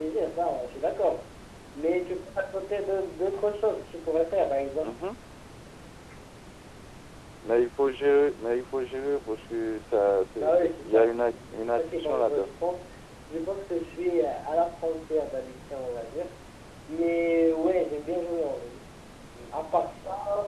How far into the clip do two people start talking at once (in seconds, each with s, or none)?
10.4 s